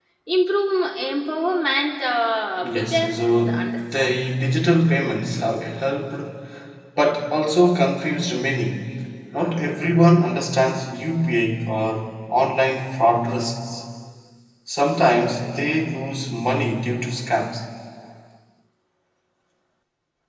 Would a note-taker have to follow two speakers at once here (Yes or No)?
Yes